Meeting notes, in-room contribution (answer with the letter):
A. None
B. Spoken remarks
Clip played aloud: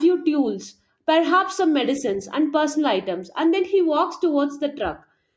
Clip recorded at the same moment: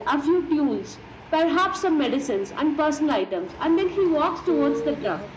B